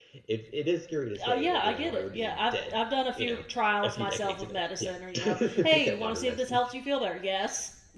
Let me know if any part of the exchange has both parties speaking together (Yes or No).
Yes